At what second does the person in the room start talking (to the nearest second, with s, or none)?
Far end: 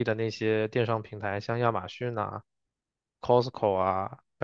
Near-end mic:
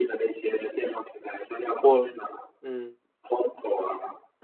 2 s